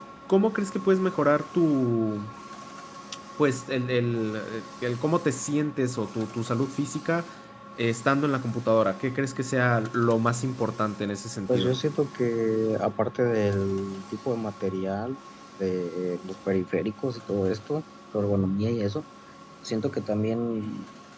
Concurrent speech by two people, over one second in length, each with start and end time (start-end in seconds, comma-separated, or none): none